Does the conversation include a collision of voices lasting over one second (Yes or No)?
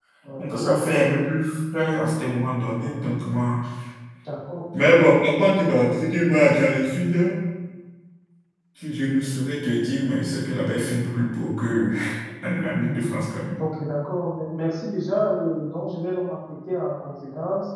No